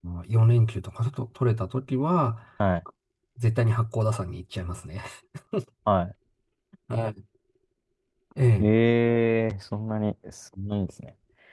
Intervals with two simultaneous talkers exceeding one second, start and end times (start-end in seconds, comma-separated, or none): none